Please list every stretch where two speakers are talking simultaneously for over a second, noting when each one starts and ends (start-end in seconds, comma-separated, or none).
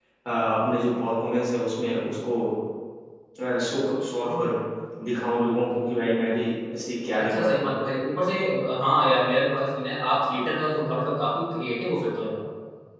none